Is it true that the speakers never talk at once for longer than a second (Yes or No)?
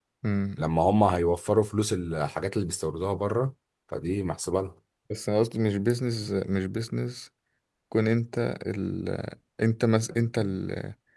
Yes